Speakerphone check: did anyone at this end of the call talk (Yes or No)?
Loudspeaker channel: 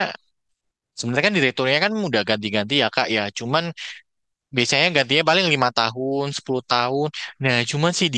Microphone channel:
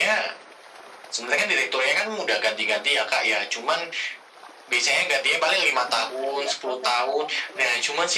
Yes